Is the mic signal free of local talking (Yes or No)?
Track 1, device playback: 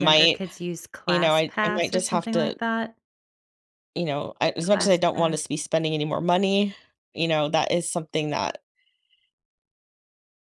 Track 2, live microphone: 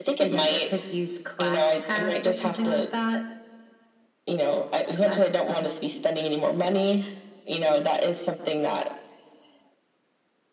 Yes